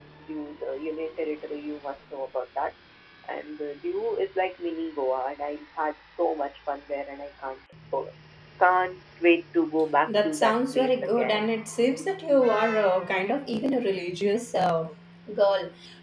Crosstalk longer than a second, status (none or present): present